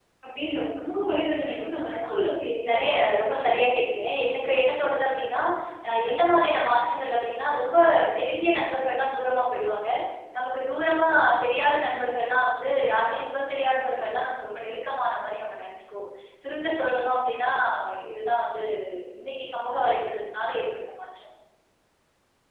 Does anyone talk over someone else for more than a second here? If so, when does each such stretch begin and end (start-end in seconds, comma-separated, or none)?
2.7-4.0